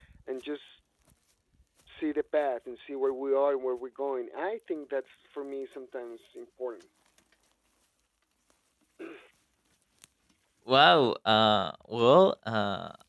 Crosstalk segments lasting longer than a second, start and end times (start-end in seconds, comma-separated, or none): none